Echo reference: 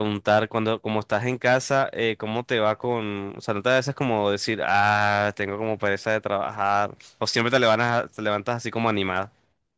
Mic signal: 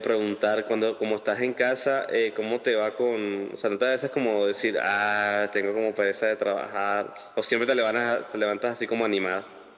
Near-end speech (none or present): none